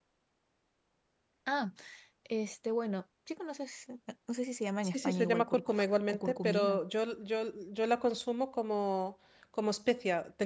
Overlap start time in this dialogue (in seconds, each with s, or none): 4.8 s